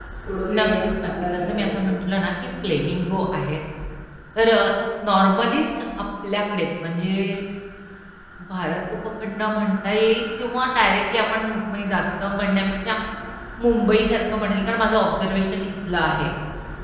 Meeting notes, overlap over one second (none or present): present